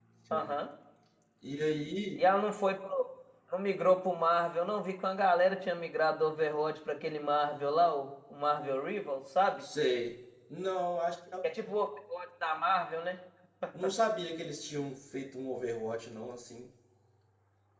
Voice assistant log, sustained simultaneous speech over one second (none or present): none